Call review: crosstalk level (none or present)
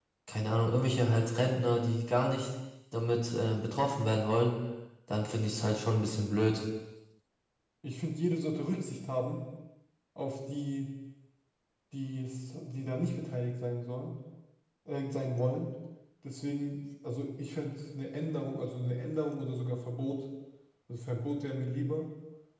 none